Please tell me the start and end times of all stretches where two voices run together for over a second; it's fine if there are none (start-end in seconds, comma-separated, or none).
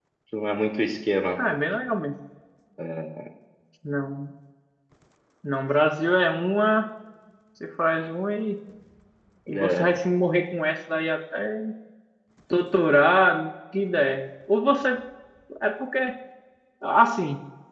none